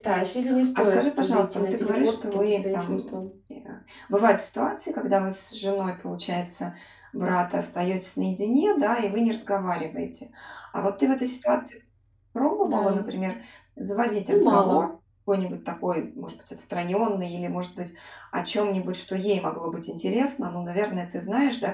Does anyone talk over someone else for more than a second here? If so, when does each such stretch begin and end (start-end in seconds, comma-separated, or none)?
0.8-3.2